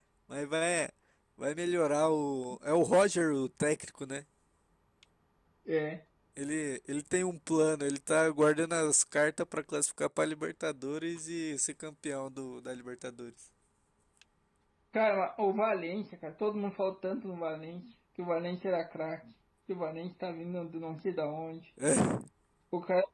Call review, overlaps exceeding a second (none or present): none